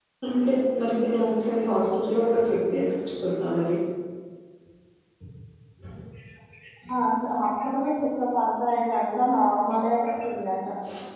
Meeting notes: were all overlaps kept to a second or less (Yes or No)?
Yes